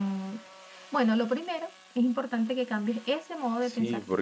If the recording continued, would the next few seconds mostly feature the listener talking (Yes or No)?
Yes